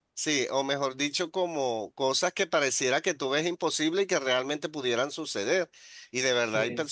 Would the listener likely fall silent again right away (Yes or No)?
Yes